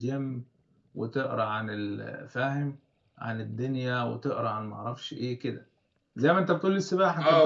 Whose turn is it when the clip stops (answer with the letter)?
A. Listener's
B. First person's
A